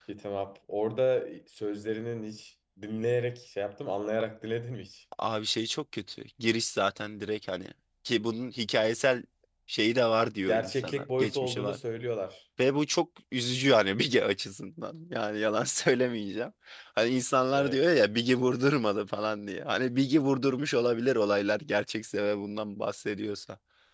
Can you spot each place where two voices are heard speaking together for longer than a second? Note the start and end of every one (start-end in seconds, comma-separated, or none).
10.5-11.8